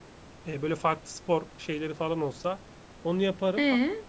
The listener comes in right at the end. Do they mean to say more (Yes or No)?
No